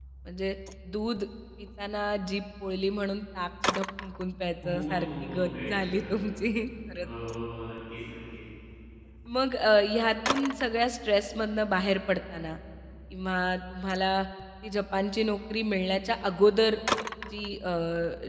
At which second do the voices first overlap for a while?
5 s

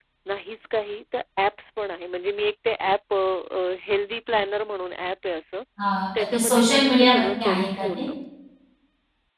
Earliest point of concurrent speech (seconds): 6 s

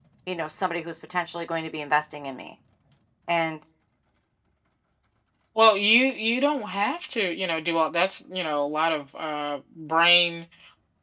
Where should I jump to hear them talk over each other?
none

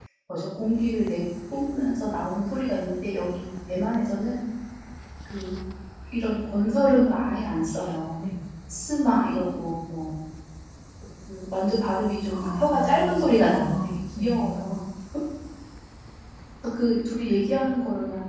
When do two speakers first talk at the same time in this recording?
12 s

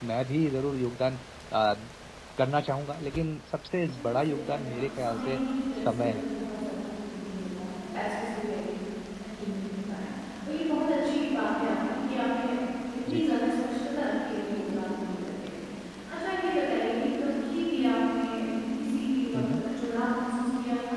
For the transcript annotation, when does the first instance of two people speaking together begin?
4 s

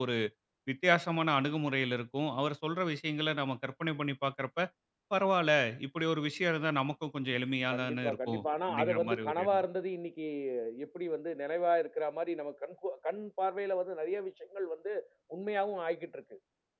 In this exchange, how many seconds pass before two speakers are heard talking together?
8 s

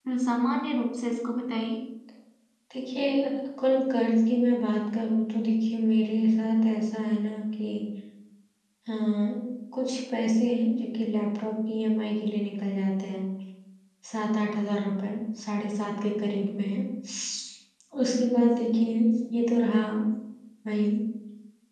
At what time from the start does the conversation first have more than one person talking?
none

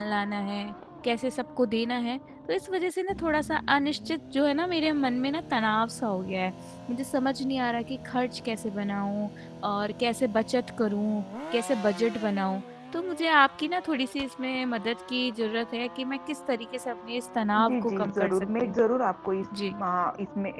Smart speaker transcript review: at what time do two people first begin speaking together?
18 s

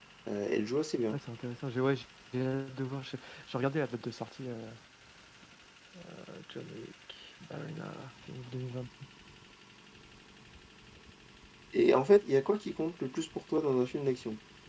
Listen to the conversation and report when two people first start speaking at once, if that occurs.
none

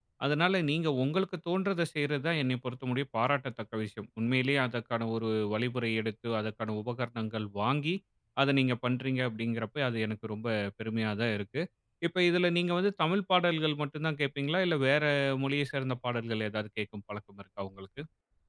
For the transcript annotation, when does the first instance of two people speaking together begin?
none

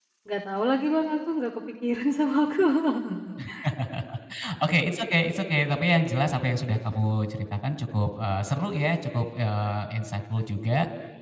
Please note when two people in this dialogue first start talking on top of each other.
none

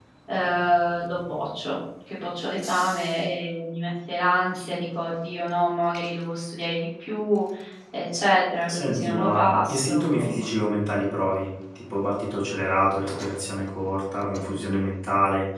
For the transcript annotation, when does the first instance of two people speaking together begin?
9 s

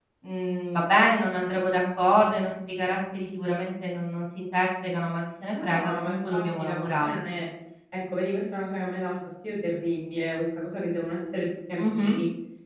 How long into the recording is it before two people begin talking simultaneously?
5 s

